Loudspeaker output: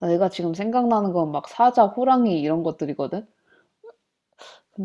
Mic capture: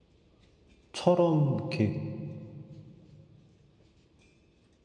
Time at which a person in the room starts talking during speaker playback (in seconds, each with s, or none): 0.9 s